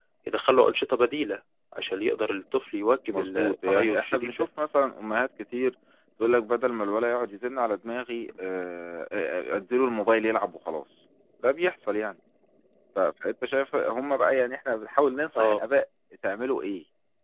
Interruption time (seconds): 3 s

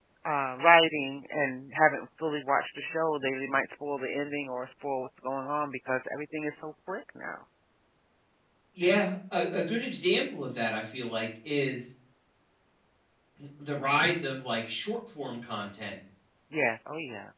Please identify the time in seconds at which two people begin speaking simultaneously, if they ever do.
none

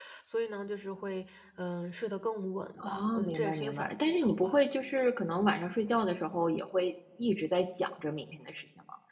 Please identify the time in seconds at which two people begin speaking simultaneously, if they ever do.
3 s

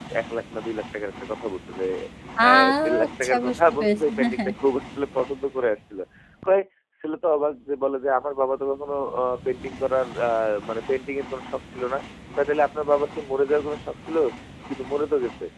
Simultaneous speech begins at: 2 s

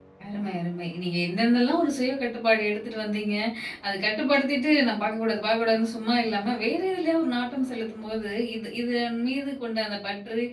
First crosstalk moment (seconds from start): none

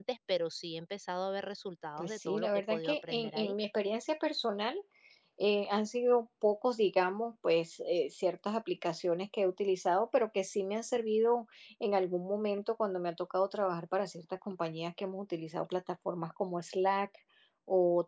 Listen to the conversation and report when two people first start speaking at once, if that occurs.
2 s

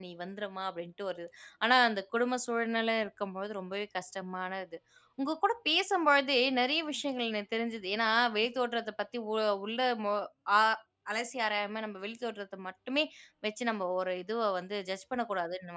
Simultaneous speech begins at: none

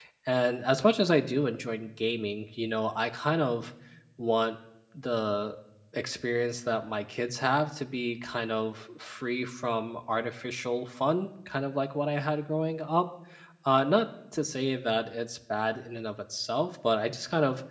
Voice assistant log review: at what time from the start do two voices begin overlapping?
none

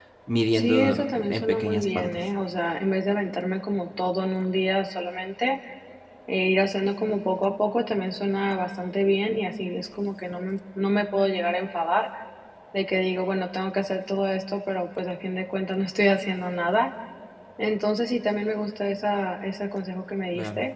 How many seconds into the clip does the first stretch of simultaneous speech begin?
1 s

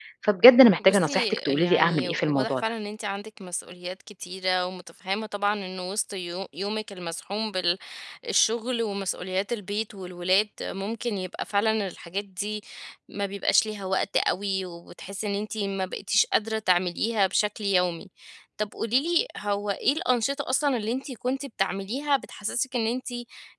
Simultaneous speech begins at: 1 s

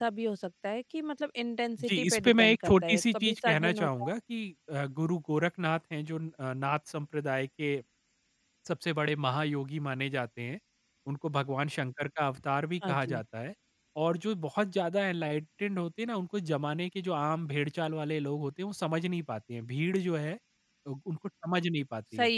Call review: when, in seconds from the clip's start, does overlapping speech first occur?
2 s

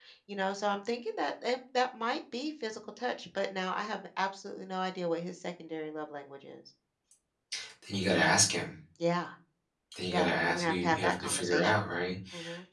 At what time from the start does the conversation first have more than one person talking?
10 s

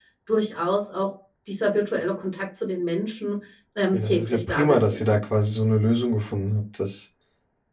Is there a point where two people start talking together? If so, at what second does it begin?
4 s

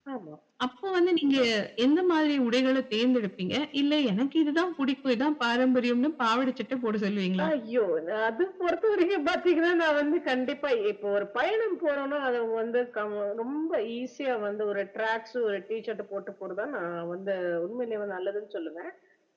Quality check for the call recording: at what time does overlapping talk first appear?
none

